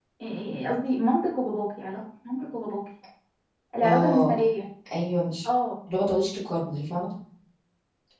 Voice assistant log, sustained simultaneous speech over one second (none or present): none